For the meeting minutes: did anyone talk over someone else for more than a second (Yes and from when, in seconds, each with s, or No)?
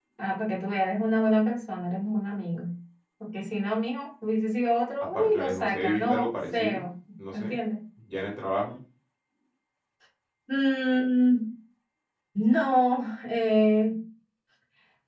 Yes, from 5.1 s